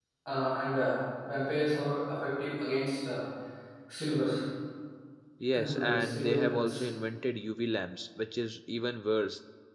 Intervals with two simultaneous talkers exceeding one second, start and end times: 5.5-6.8

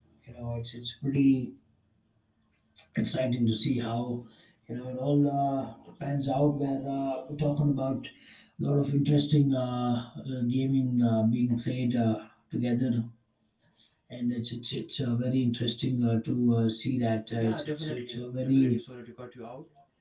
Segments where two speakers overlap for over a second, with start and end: 17.4-18.8

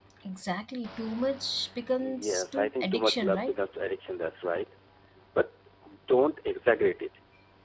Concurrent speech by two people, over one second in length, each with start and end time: 2.0-3.6

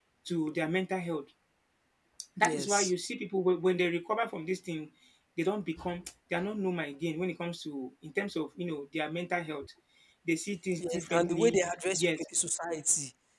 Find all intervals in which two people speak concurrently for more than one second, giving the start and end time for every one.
10.8-12.2

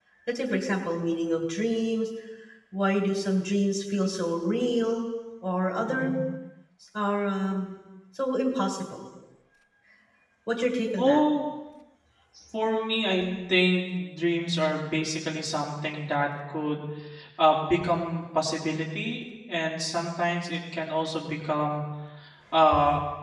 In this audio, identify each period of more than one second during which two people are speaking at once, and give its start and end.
none

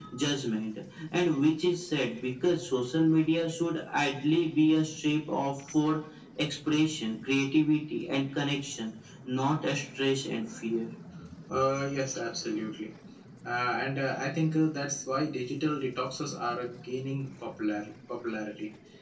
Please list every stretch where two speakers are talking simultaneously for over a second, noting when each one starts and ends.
none

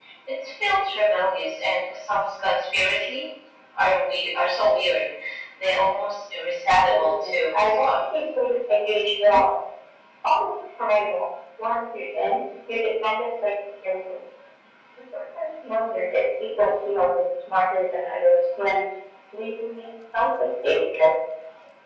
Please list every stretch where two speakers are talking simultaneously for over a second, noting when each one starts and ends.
6.7-7.9

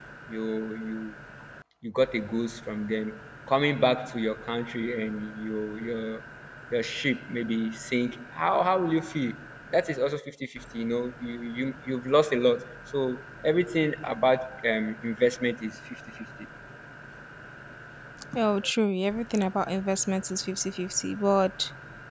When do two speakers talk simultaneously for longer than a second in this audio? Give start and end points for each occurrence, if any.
none

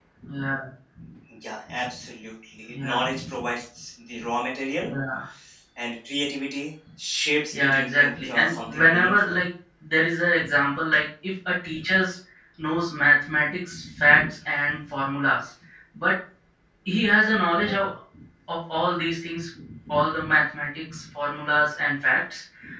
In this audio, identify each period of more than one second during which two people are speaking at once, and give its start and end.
7.5-9.3

